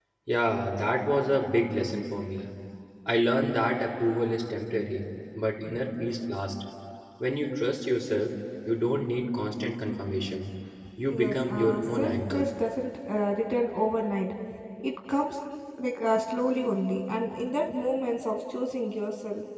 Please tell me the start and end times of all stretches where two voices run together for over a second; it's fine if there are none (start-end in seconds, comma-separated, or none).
11.2-12.5